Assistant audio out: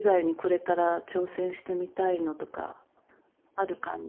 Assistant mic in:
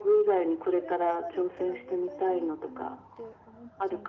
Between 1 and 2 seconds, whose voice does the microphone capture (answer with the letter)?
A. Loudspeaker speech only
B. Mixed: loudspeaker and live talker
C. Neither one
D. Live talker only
B